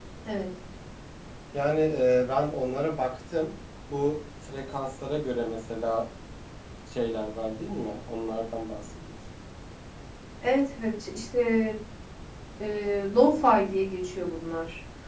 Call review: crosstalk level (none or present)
none